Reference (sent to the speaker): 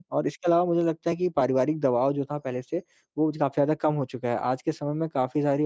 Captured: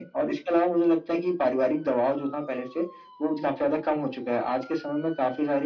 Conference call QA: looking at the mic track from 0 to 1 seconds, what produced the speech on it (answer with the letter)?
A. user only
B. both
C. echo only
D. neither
C